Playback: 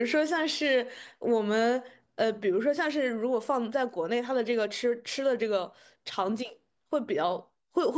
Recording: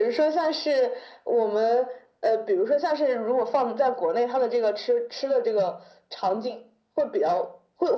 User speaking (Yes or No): No